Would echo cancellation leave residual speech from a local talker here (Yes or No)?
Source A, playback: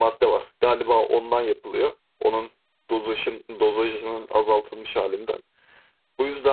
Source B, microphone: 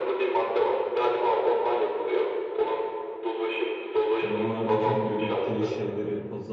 Yes